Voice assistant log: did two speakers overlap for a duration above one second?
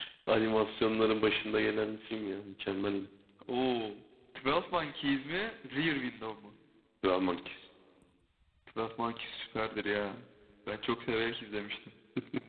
No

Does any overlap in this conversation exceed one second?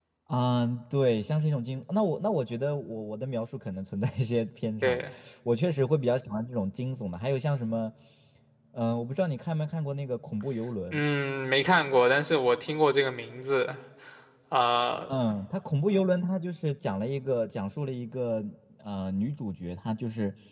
No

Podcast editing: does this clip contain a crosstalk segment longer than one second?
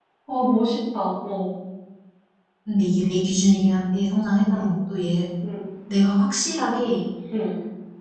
No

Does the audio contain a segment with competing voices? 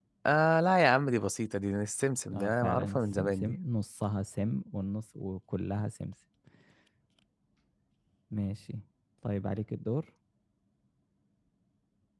Yes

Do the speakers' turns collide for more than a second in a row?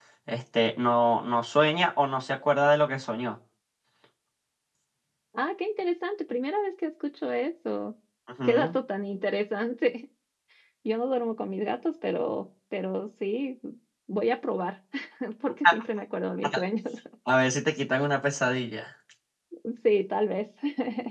No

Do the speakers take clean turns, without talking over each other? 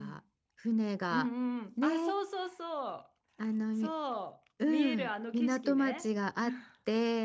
No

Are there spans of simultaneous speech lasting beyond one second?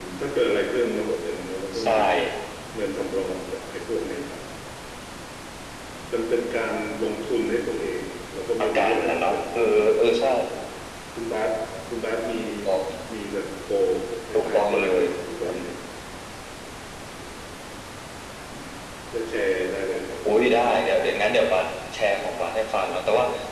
Yes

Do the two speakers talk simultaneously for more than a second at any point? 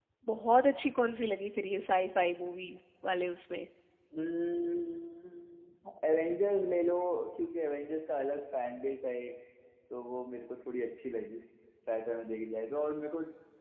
No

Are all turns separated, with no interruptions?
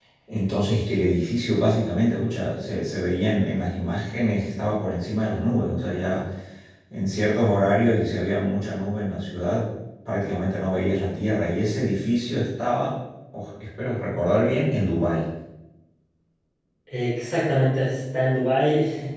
Yes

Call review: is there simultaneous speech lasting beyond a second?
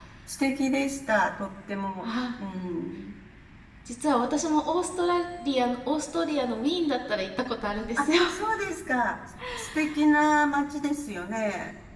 No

